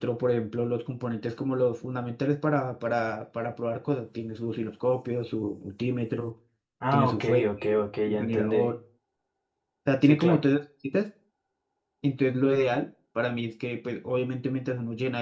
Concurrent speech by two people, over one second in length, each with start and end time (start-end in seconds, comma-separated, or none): 6.9-8.6